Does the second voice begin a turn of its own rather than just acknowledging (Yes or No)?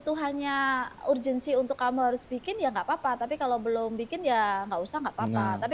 No